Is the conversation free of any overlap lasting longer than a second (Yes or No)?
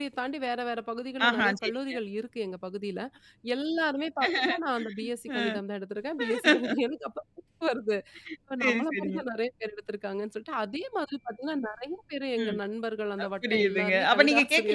No